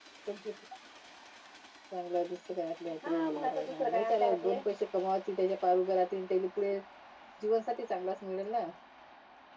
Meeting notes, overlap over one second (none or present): present